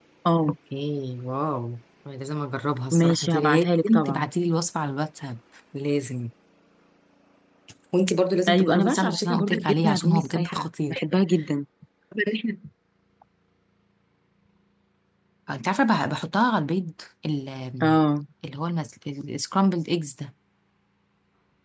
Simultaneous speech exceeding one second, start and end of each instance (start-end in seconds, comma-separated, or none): 2.9-4.3, 8.5-11.0